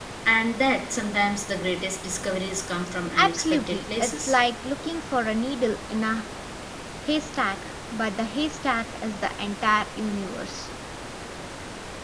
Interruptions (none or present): present